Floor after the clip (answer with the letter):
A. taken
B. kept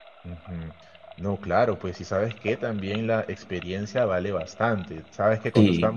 B